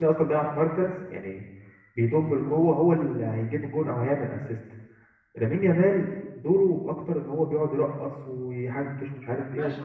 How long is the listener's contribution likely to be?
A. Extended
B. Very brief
A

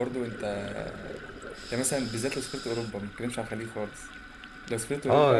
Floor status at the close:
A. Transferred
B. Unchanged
B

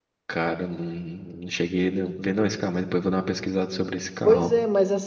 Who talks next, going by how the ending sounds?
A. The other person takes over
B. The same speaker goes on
A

